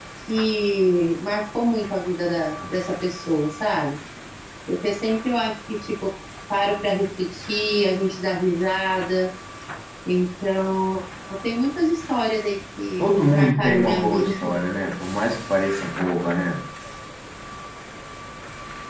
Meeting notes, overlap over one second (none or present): present